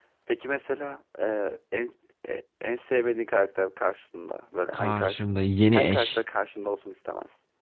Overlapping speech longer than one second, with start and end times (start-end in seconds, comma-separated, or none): none